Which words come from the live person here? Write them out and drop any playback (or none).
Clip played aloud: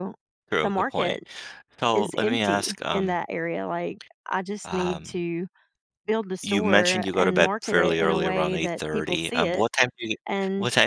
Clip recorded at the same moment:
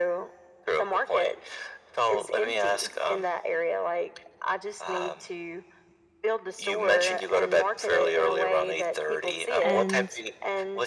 And